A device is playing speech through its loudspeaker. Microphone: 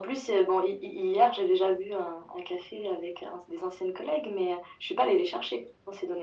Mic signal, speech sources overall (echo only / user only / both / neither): echo only